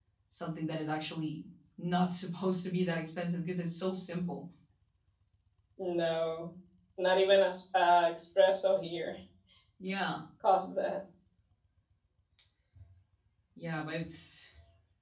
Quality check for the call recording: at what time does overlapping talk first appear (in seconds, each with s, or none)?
none